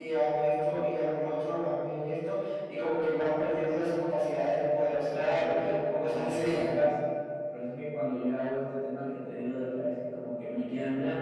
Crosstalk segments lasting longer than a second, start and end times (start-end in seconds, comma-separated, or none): 5.1-6.4